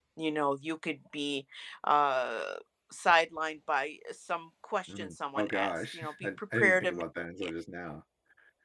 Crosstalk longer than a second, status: present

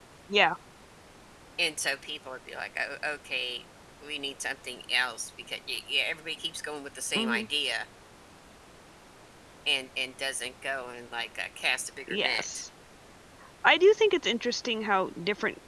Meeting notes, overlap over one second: none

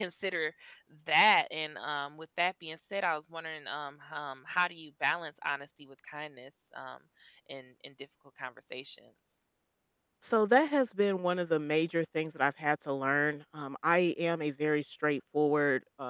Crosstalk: none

